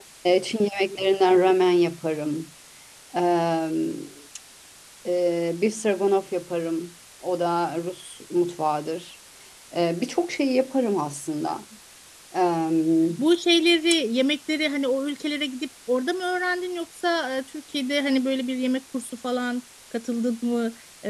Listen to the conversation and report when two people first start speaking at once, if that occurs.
none

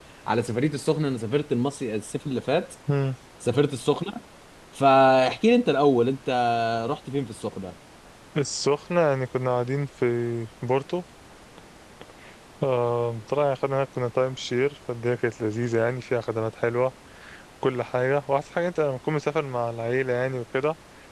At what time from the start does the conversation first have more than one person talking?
none

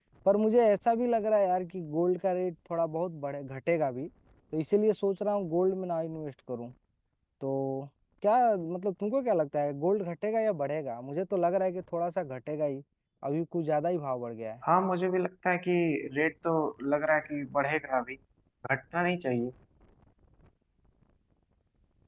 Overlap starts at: none

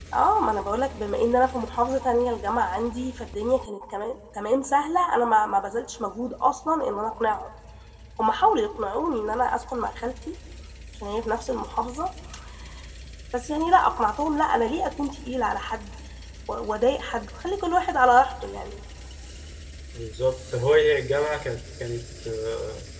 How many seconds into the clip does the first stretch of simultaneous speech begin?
none

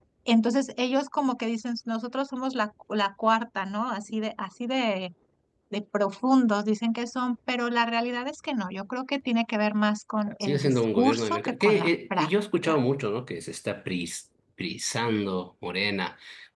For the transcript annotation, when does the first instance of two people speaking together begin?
10 s

